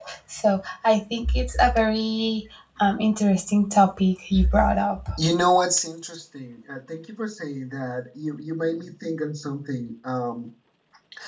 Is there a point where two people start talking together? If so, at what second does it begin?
none

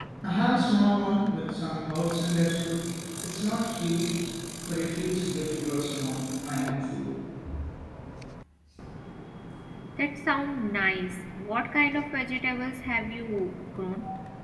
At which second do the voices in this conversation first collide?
none

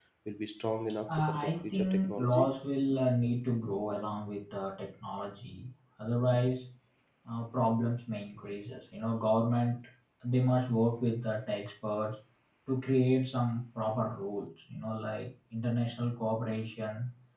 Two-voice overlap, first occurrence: 1.1 s

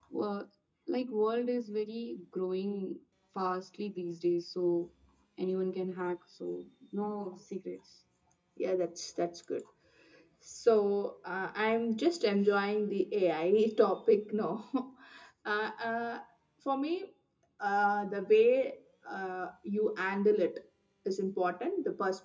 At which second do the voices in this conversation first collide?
none

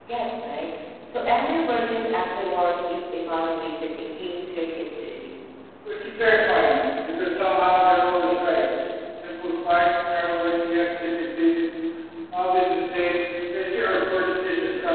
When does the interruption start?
none

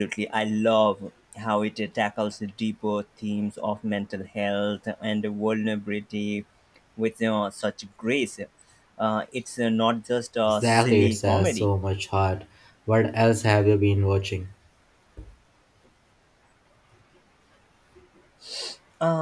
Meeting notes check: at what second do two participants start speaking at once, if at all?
10.5 s

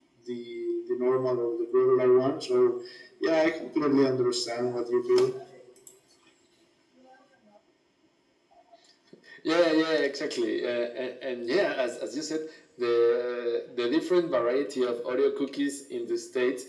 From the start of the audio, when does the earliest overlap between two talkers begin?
none

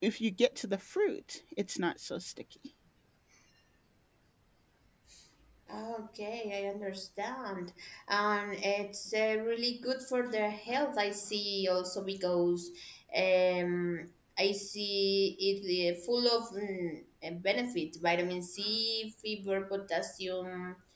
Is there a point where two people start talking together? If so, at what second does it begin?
none

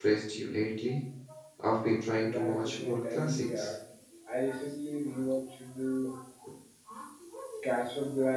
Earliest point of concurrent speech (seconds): 2.3 s

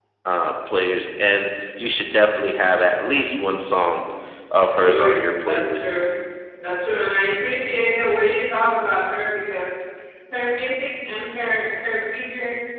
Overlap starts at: 4.7 s

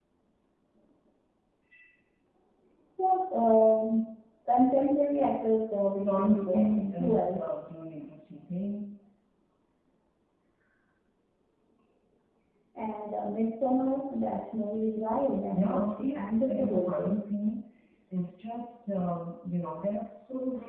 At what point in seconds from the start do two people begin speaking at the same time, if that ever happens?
6.0 s

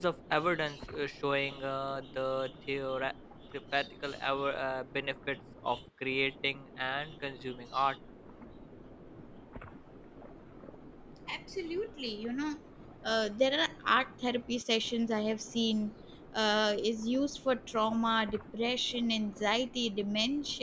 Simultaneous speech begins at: none

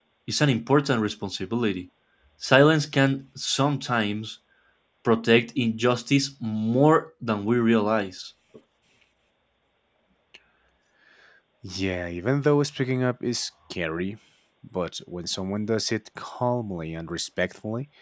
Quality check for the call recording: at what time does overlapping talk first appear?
none

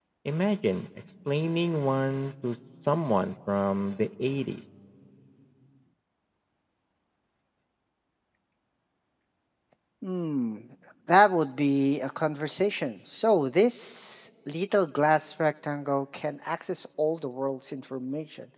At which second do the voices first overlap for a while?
none

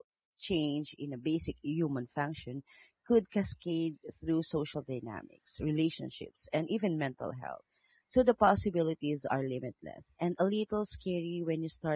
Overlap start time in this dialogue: none

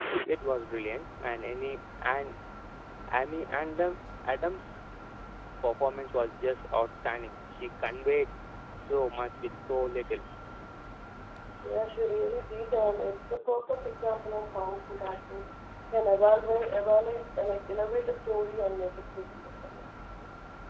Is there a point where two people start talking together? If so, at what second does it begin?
none

